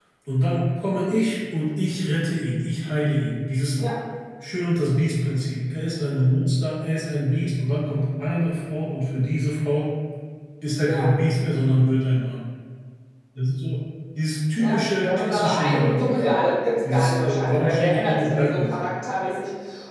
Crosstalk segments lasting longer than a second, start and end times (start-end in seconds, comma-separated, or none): 14.6-16.2, 16.9-18.7